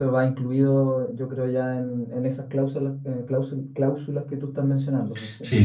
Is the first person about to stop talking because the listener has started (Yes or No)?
Yes